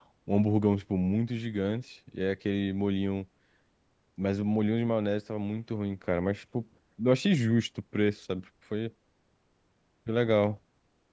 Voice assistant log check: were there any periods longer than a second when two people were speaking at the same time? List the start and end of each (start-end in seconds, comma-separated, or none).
none